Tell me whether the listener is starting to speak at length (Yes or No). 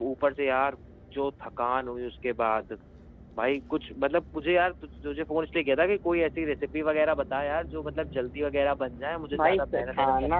Yes